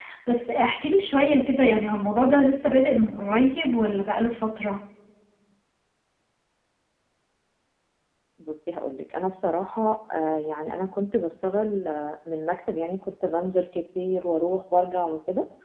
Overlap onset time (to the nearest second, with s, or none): none